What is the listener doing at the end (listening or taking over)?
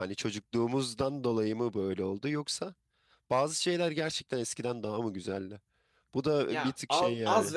taking over